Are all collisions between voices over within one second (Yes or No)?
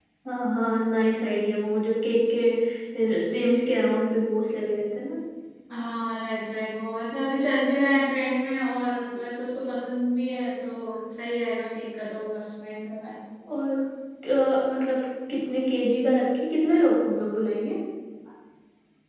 Yes